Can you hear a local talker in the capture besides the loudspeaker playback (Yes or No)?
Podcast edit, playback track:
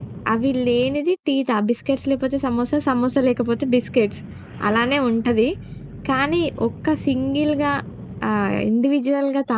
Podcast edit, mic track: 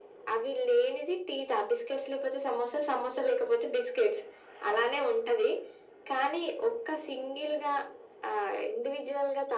No